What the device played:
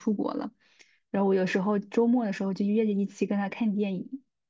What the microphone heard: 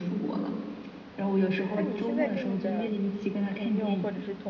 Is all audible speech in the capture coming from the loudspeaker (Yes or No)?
No